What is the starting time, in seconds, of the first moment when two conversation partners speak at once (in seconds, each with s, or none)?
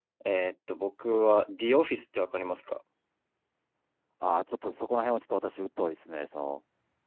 none